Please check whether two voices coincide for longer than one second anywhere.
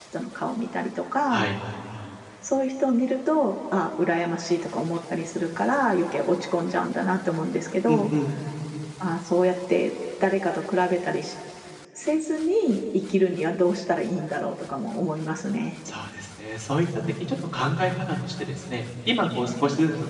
No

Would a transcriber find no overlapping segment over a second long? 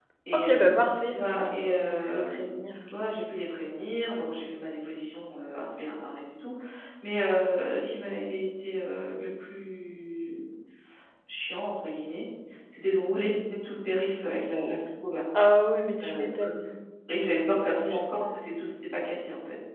No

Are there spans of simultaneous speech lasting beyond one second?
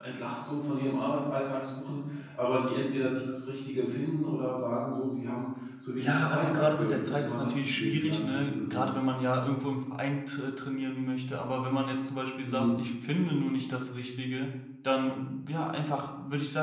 Yes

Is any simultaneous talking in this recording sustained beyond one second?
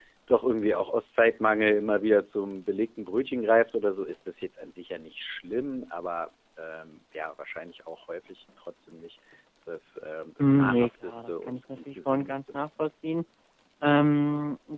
Yes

